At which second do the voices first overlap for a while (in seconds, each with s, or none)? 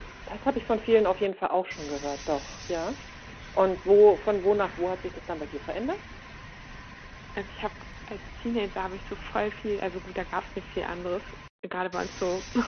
none